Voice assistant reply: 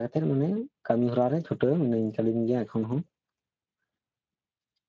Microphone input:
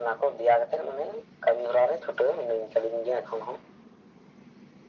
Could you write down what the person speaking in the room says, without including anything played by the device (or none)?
none